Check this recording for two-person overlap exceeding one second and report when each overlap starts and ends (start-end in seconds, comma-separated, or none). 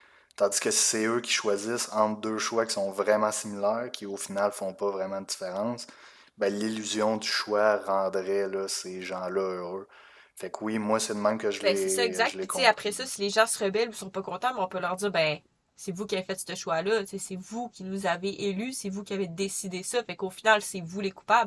11.6-12.9